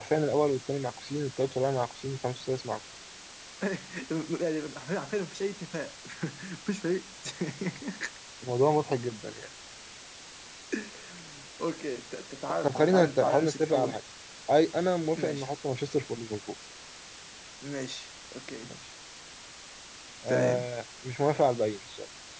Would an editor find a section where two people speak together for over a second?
Yes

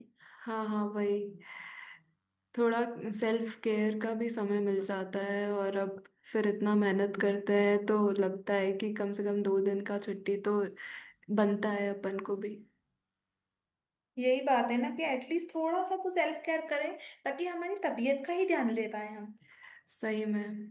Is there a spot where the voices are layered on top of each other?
No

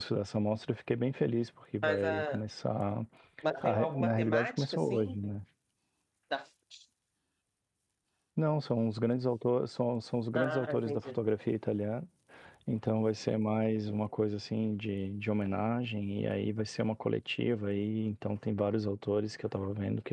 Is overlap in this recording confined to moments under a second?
No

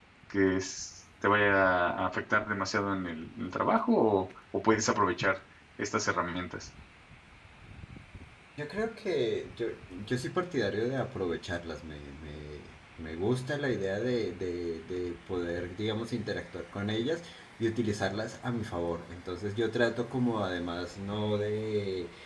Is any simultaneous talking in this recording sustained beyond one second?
No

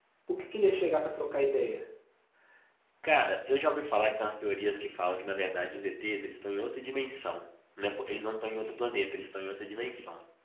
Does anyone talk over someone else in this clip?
No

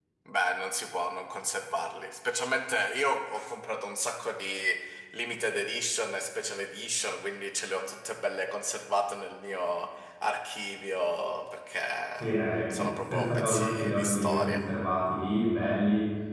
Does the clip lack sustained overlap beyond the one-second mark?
No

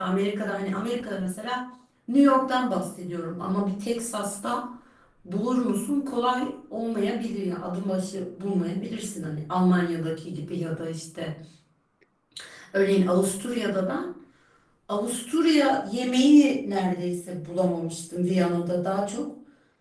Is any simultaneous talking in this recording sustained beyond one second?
No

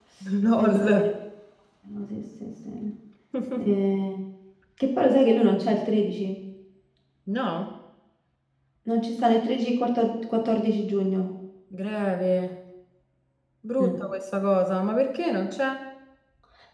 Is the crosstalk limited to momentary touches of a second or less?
Yes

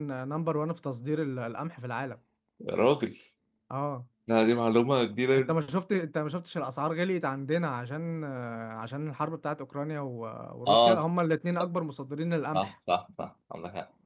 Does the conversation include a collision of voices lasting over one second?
No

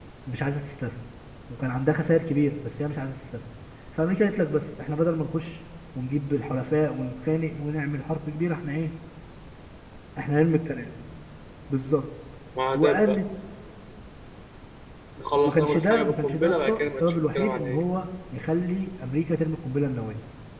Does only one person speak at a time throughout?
No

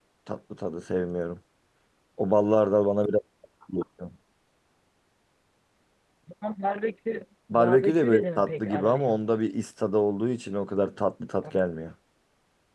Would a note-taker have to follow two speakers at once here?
Yes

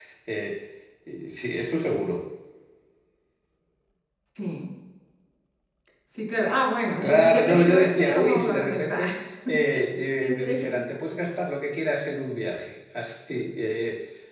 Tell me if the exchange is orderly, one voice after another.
No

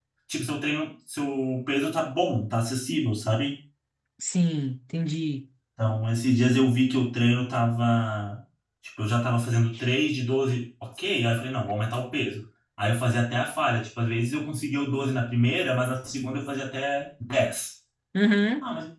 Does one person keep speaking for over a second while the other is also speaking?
No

